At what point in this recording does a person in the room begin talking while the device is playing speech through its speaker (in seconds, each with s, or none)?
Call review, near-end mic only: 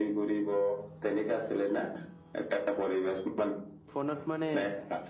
3.9 s